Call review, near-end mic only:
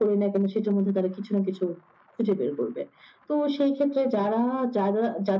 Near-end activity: none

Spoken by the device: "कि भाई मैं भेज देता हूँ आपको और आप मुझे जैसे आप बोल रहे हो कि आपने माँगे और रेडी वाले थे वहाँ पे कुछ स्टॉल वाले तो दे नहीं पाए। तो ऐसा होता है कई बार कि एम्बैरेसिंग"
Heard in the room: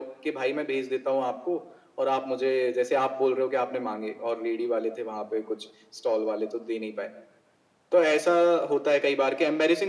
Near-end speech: none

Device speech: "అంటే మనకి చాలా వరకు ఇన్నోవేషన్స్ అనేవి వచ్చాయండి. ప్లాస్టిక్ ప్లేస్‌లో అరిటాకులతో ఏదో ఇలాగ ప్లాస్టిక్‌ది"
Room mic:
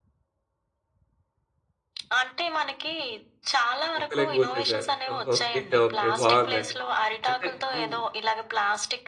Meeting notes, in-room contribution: present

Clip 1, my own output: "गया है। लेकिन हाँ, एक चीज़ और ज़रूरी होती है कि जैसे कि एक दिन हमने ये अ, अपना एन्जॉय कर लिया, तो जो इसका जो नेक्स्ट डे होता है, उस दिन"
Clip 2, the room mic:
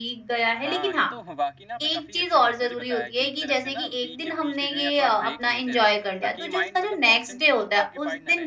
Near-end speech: present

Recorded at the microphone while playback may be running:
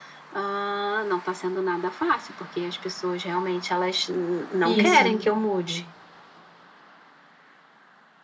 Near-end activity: present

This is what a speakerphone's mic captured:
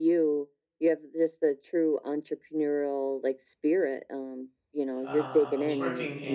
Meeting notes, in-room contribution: present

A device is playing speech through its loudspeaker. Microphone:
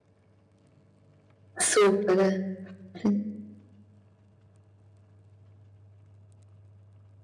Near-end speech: present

